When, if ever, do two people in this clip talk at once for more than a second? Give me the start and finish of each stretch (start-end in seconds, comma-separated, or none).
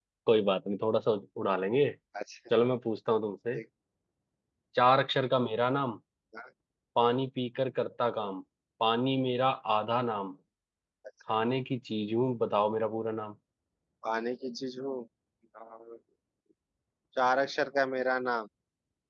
none